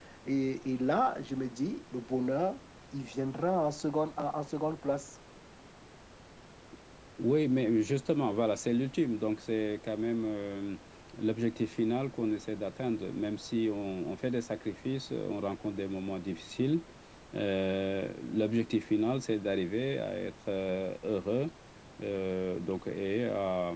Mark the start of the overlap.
none

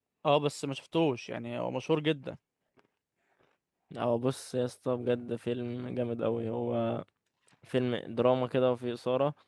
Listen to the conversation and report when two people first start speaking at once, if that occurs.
none

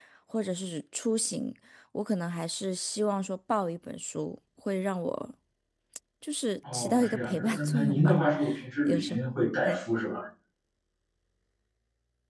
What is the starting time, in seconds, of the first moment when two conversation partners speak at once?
6.7 s

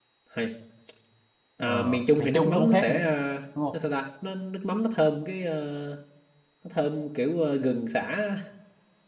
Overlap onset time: 1.6 s

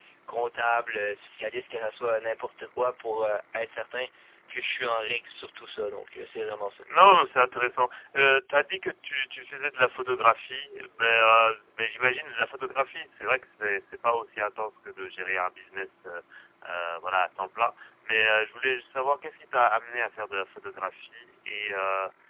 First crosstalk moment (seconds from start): none

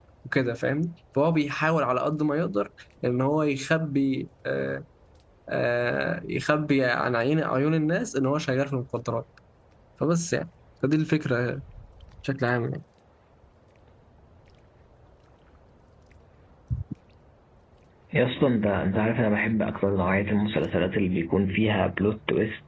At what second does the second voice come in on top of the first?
none

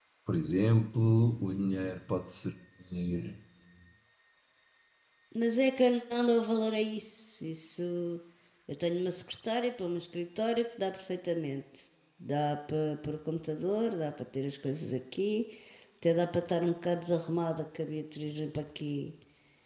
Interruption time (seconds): none

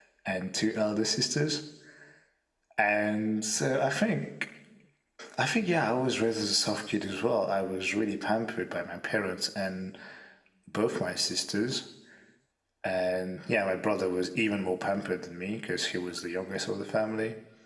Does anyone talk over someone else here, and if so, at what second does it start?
none

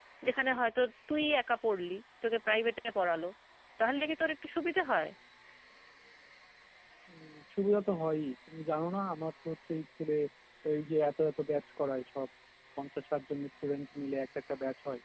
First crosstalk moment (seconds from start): none

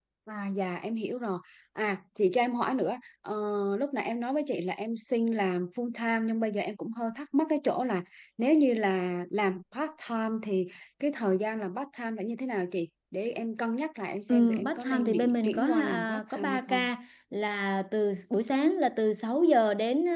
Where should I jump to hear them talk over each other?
14.3 s

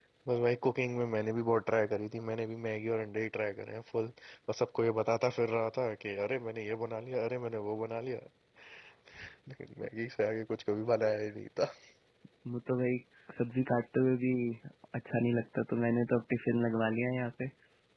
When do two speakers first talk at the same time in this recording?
none

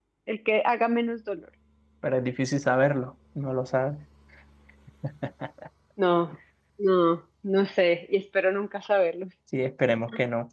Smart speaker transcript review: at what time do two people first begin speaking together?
none

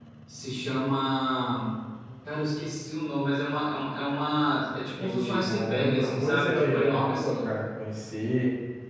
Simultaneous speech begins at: 5.0 s

